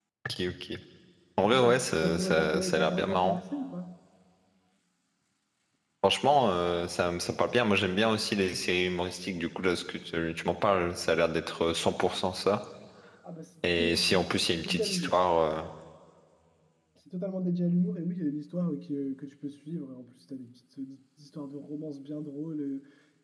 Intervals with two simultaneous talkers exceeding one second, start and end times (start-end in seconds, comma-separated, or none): 1.4-3.4, 13.6-15.1